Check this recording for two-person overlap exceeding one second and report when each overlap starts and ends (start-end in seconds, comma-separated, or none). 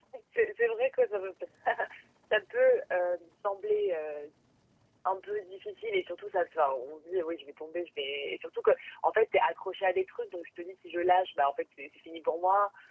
none